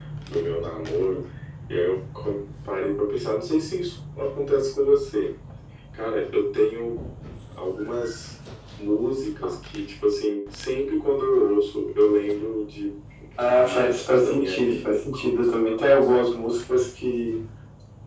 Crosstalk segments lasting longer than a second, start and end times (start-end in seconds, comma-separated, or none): 13.4-15.0